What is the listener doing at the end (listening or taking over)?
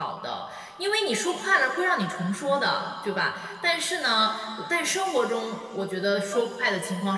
listening